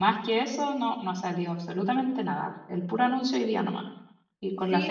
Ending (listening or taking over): taking over